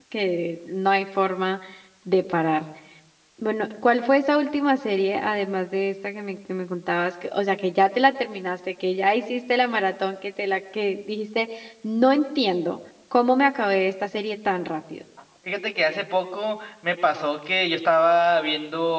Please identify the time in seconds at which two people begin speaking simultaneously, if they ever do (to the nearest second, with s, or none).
none